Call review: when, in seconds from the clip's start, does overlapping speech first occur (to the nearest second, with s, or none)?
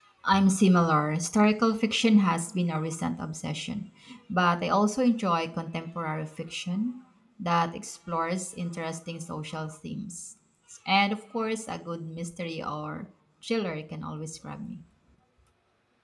none